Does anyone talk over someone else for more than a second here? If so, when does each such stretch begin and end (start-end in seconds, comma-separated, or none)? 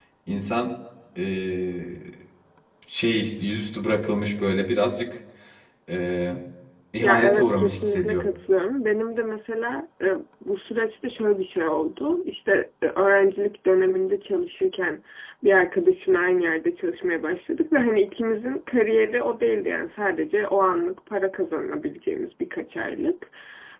7.0-8.3